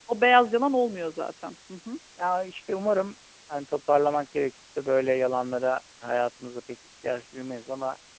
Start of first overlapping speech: none

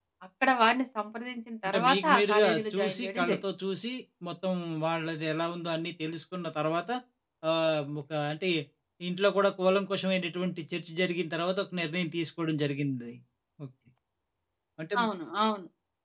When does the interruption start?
1.6 s

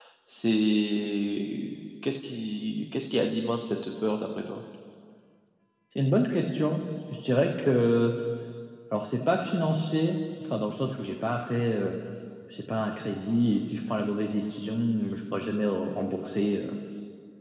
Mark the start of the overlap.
none

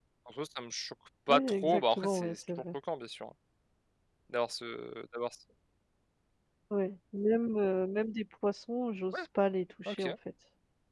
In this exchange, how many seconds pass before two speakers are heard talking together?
1.3 s

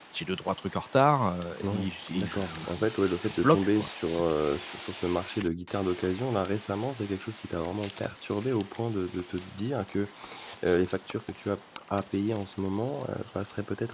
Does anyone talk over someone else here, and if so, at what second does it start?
1.6 s

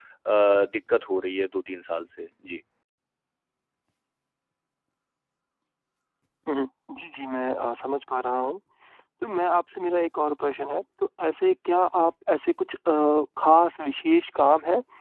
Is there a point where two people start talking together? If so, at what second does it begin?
none

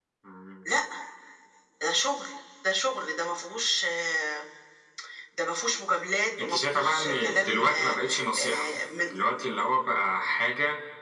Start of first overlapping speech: 6.4 s

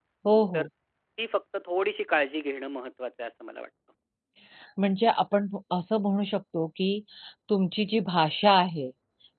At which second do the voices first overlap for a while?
none

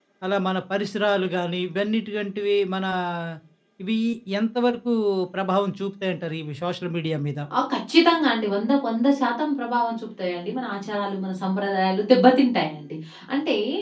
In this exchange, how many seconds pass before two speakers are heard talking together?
none

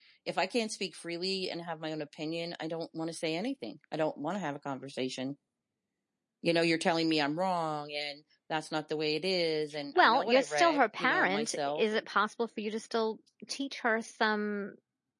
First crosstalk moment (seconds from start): 9.9 s

